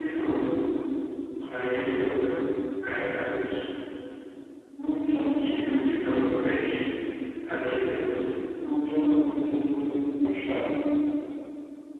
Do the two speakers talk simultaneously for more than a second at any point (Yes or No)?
No